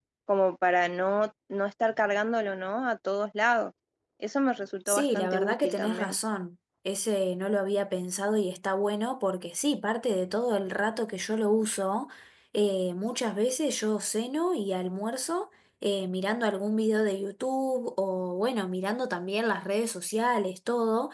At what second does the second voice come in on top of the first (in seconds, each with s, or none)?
4.9 s